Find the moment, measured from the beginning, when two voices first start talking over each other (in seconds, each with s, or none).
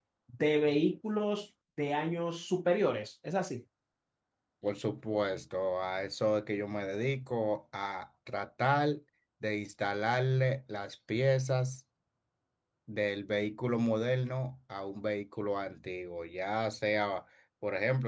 none